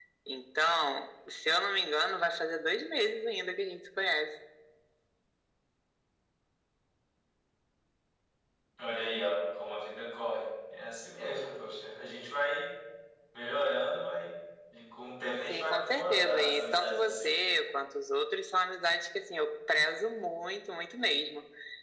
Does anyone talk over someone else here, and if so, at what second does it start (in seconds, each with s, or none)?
15.5 s